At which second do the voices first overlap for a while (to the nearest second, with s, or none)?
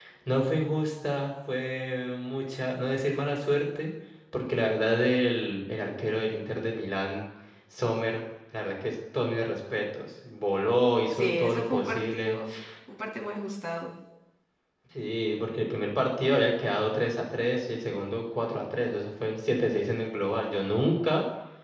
11 s